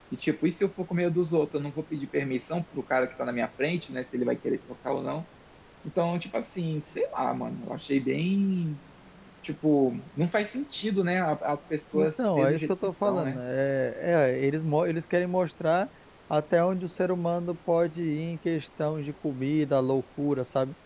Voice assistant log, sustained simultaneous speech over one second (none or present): present